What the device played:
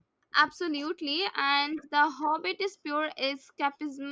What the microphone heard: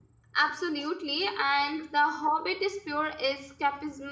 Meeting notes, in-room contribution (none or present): none